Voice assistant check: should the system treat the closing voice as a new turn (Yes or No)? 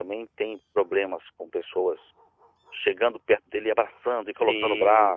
Yes